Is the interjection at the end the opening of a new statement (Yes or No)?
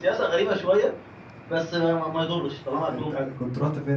Yes